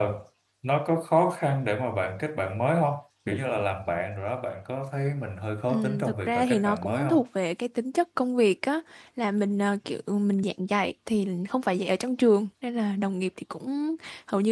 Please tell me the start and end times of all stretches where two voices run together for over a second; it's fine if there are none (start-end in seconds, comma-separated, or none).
5.7-7.2